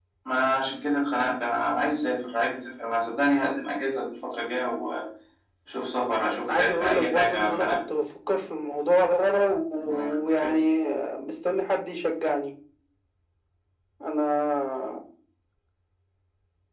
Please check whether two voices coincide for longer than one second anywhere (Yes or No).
Yes